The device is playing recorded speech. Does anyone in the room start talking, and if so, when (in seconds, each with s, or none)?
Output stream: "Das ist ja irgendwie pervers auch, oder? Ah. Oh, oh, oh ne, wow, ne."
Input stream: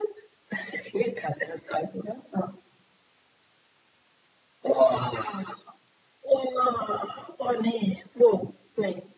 none